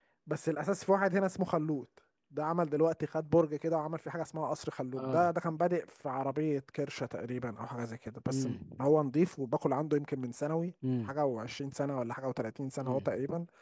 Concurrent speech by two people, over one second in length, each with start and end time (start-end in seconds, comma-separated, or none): none